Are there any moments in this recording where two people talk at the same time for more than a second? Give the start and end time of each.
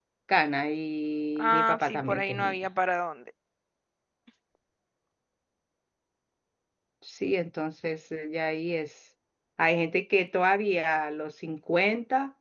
1.4-2.6

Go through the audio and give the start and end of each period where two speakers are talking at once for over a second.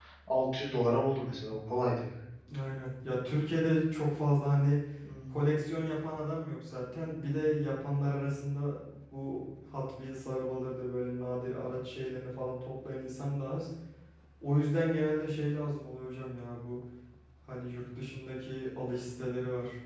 none

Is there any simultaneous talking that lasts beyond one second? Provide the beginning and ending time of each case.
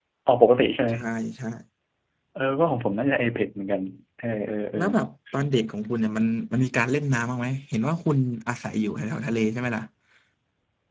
none

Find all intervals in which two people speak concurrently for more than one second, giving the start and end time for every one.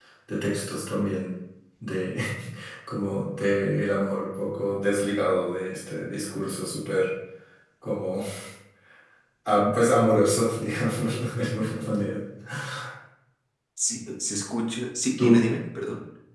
none

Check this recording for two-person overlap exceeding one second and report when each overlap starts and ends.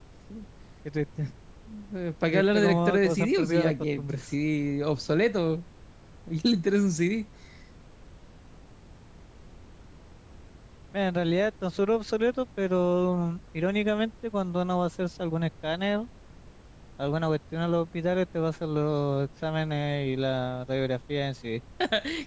2.3-4.2

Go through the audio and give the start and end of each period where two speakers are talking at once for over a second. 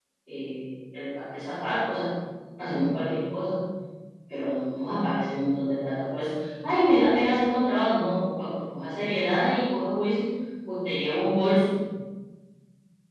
none

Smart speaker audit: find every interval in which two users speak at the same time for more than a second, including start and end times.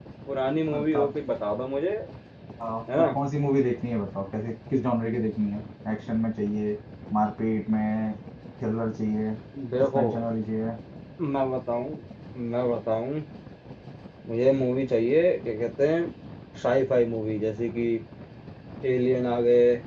none

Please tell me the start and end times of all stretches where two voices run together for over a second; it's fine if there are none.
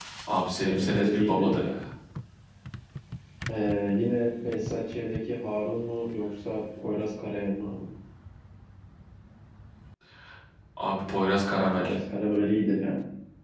0.6-1.8

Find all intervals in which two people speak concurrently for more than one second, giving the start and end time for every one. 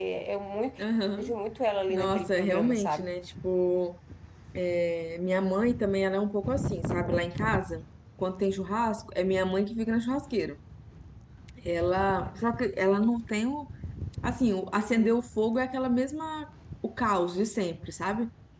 1.9-3.1

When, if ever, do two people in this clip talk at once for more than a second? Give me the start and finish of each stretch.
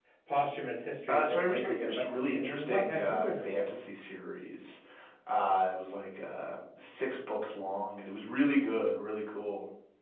1.1-3.7

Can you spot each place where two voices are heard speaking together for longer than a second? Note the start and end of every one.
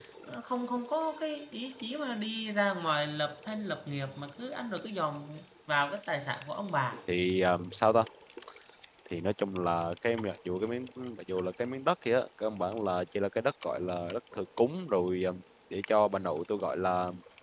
none

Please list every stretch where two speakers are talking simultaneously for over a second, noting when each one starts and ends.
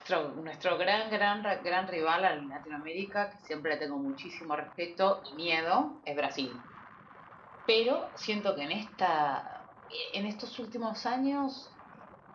none

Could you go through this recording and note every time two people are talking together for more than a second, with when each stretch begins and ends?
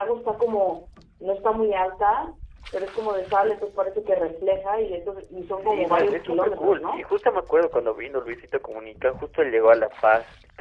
5.7-7.1

